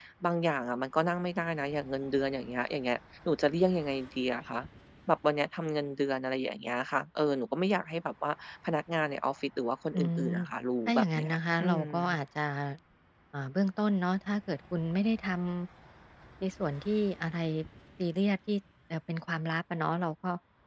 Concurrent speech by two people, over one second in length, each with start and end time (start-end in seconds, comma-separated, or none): 10.9-12.2